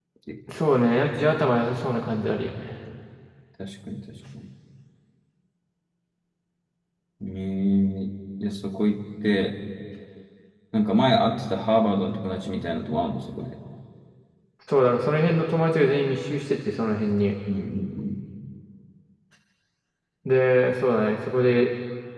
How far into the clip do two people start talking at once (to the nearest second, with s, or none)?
none